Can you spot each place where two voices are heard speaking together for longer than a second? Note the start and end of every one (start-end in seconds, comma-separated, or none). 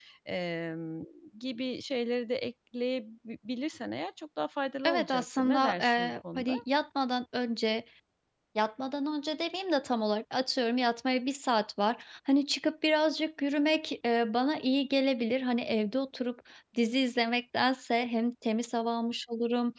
4.8-6.5